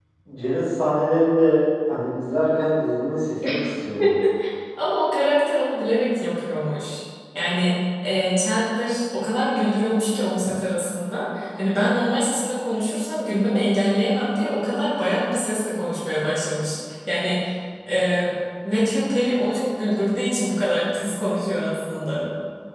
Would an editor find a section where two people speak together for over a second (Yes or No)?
No